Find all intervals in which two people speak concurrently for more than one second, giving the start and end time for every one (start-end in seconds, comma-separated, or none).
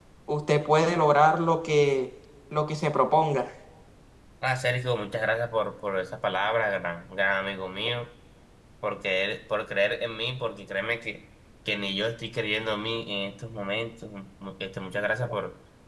none